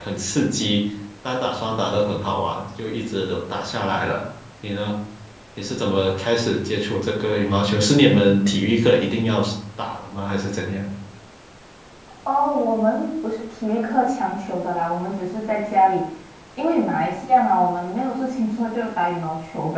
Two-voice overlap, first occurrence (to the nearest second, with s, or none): none